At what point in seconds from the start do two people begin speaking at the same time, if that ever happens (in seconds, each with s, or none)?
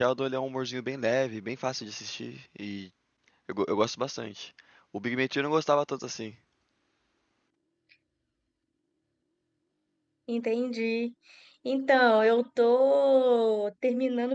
none